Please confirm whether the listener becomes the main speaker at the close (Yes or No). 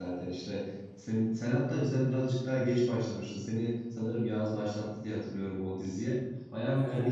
No